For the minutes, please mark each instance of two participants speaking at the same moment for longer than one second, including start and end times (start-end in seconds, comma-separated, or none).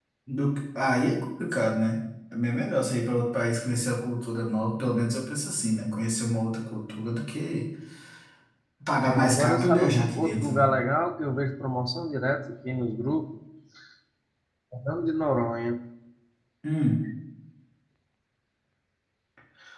9.0-10.6